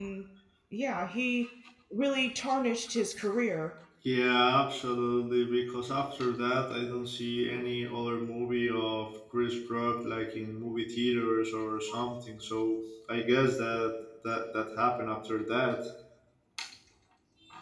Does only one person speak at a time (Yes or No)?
Yes